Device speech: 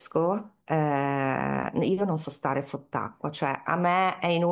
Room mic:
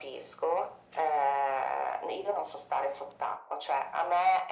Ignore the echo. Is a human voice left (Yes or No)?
No